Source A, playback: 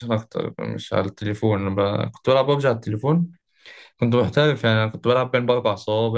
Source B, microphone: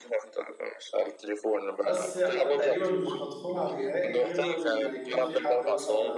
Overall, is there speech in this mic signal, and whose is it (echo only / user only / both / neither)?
both